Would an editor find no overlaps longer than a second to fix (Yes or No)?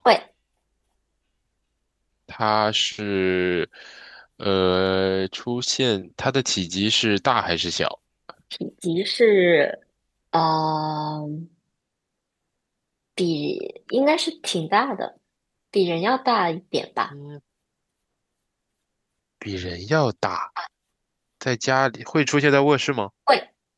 Yes